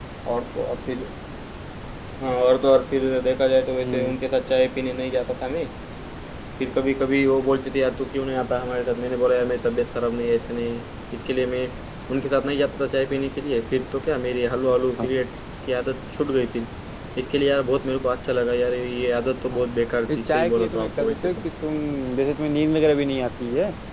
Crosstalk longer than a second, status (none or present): present